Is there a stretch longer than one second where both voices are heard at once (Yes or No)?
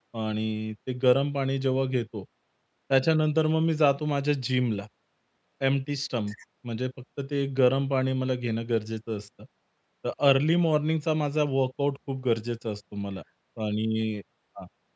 No